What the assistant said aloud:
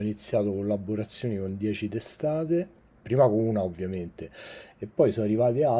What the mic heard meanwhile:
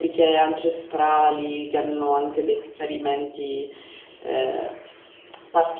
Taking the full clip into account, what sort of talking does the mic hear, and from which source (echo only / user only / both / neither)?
user only